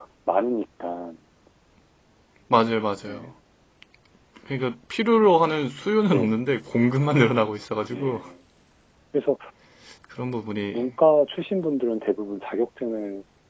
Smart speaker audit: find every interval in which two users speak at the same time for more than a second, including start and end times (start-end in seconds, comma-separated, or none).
none